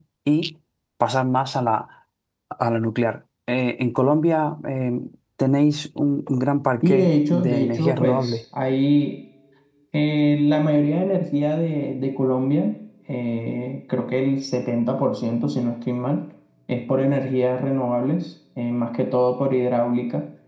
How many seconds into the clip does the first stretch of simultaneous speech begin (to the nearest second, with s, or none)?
7 s